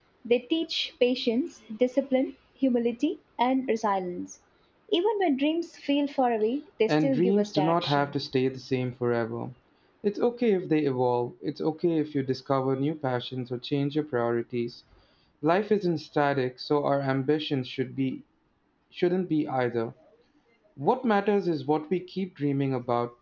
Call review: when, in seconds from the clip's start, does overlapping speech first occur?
7 s

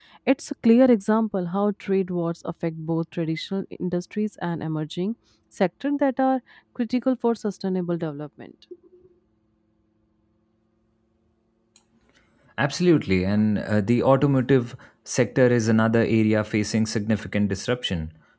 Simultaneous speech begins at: none

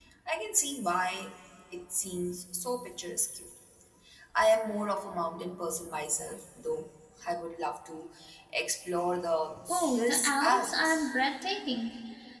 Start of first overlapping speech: 10 s

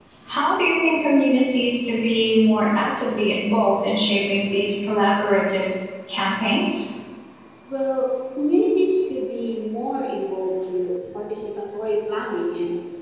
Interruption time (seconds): none

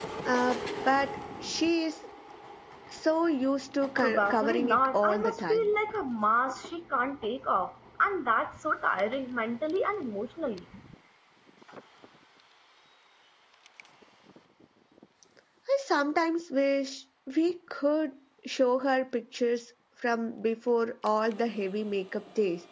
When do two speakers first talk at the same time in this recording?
4 s

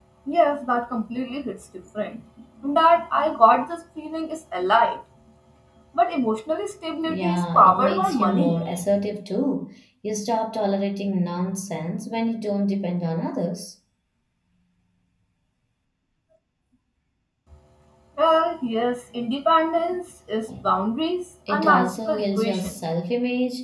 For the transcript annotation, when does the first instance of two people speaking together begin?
7 s

